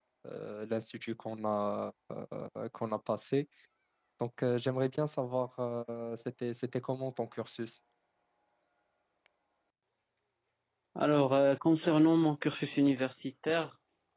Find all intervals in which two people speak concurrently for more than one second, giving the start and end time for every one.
none

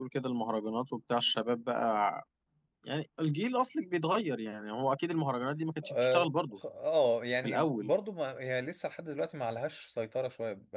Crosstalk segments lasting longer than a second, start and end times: none

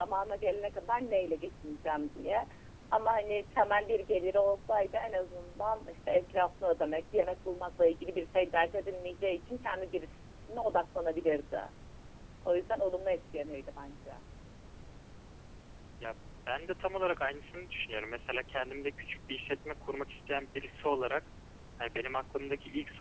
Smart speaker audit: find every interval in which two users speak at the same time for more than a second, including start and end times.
none

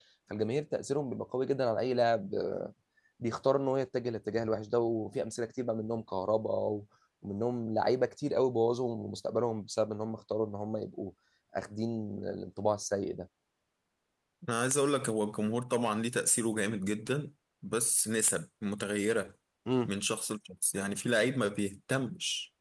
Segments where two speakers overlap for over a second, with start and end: none

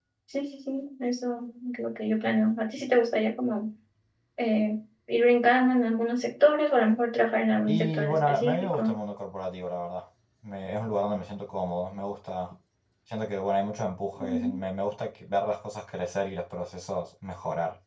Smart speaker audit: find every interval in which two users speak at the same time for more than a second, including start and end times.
7.7-8.9

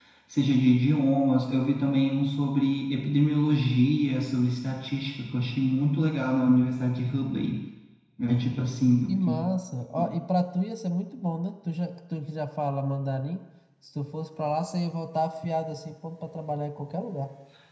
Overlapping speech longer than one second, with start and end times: none

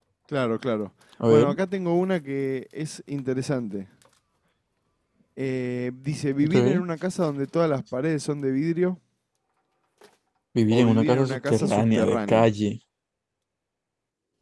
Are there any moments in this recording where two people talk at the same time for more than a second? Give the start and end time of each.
10.7-12.5

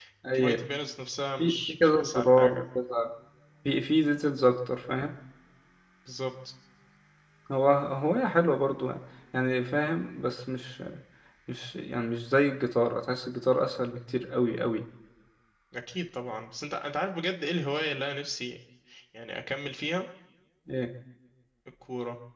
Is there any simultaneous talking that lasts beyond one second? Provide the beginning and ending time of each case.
1.4-2.6

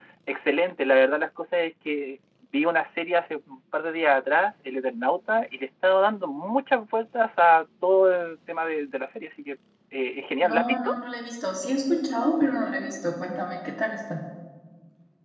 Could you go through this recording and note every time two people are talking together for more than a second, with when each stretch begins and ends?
none

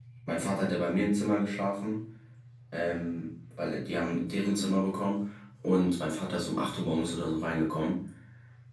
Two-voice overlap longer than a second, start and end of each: none

